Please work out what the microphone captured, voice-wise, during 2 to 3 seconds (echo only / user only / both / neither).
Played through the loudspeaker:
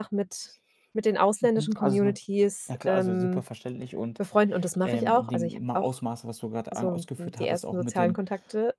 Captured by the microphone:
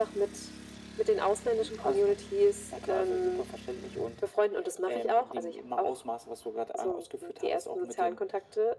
echo only